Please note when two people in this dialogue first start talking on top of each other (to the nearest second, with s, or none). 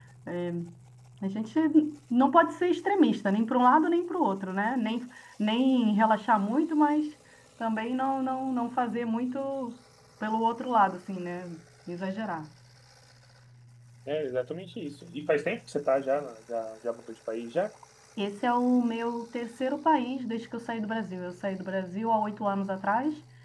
none